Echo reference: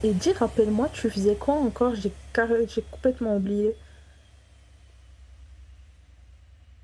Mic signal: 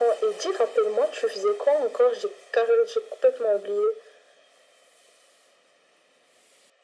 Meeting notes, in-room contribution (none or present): none